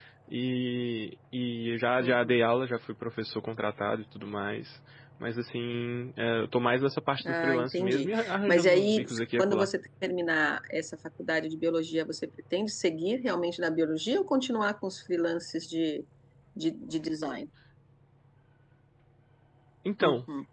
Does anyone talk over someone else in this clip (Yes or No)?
Yes